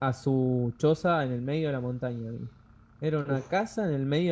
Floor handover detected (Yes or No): No